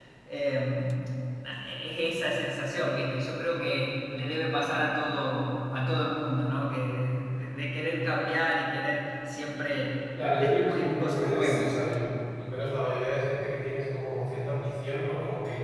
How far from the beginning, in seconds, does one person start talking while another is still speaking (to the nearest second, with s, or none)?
10 s